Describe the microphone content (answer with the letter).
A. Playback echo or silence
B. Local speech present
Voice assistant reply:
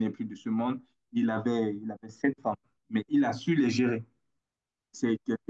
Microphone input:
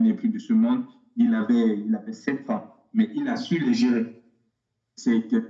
A